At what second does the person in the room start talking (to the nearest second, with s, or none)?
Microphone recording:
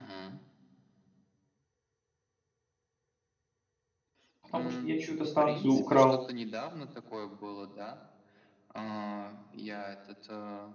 4 s